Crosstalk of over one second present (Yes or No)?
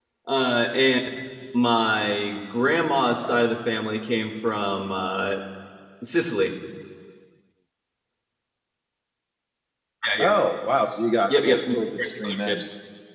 No